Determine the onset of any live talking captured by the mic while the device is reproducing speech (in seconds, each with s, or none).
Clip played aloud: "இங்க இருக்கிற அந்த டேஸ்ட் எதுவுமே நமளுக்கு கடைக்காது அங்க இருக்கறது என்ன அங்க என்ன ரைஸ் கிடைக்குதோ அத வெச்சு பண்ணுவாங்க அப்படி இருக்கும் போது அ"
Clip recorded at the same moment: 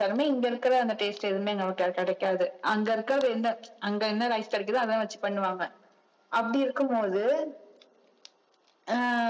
none